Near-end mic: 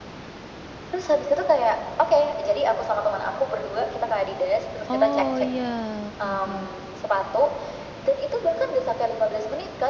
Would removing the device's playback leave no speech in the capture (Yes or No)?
No